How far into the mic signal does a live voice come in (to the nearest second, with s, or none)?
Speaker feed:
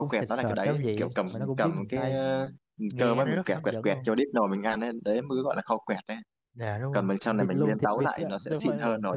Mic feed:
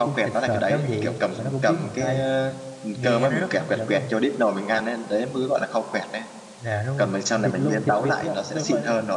none